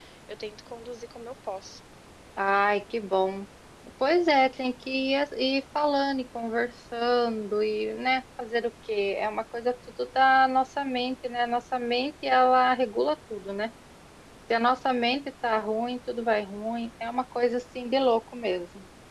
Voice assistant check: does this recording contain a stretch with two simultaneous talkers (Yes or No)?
No